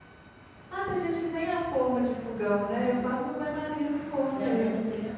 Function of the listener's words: taking over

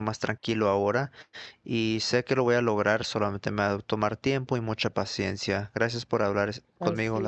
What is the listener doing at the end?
taking over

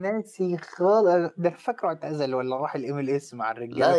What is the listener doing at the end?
taking over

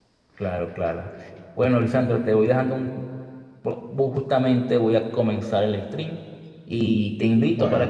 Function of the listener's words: listening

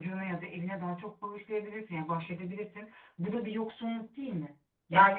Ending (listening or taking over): taking over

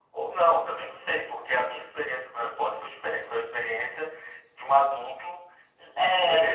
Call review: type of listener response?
listening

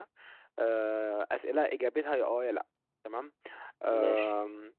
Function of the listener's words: listening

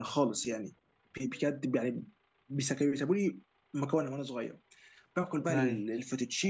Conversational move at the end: listening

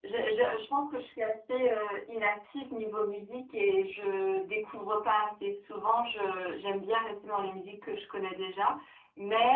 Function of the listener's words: listening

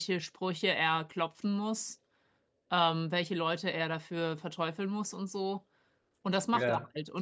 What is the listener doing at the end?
listening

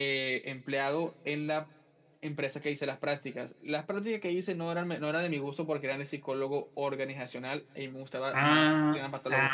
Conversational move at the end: taking over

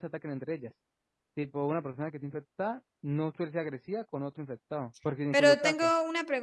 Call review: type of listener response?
taking over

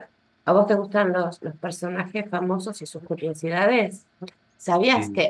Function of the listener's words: listening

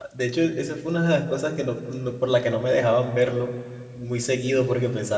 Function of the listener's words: listening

